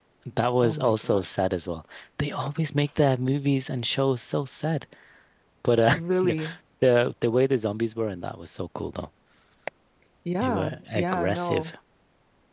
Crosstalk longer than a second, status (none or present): present